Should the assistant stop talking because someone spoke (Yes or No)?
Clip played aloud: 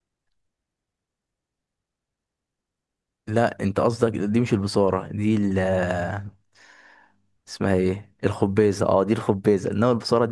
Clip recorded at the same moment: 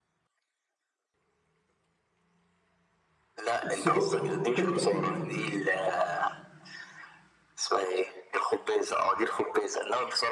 Yes